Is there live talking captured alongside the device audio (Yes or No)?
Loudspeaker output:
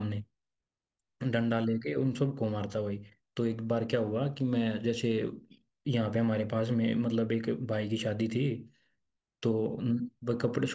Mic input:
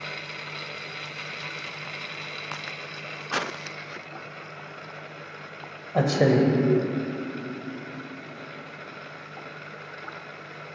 Yes